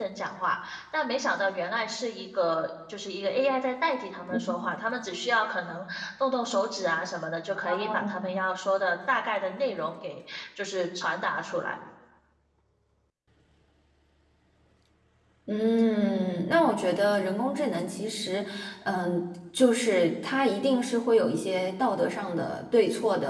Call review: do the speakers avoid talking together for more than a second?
Yes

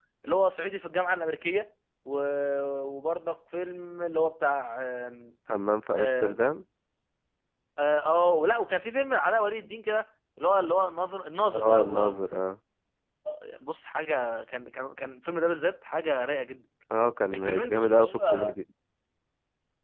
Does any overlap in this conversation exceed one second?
Yes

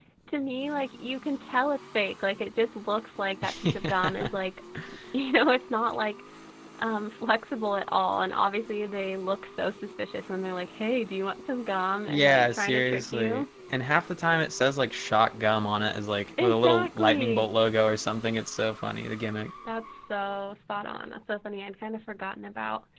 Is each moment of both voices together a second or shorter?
No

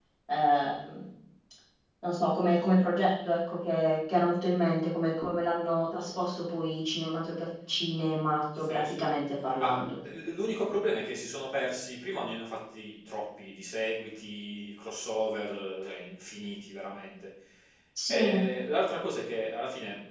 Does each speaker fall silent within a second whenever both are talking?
Yes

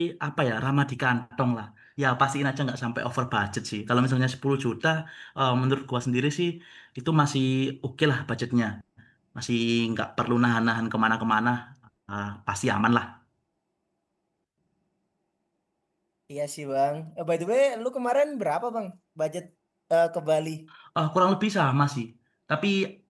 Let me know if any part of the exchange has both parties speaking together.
No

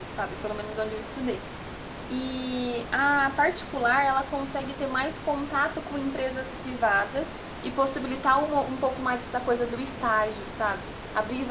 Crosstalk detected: No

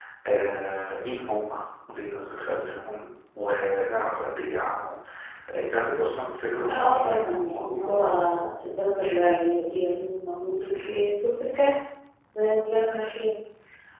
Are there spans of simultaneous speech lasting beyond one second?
Yes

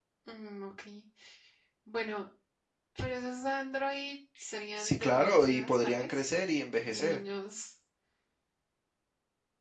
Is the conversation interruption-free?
No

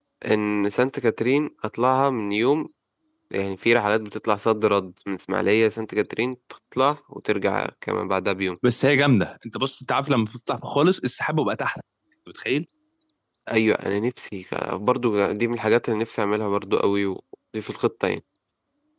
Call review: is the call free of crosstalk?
Yes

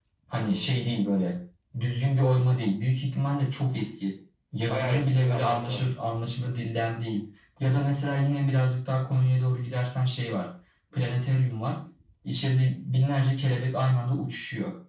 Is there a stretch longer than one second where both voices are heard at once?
Yes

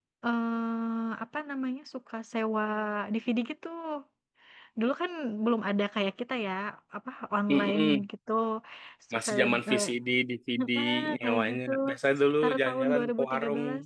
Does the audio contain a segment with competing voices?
Yes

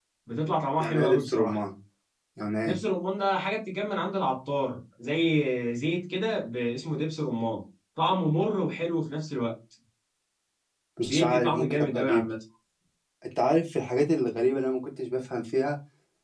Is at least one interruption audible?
Yes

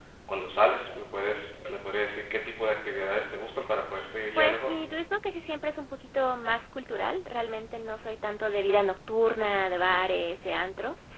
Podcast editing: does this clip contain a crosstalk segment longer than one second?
No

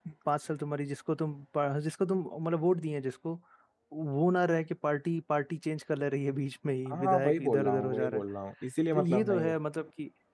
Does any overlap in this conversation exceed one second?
Yes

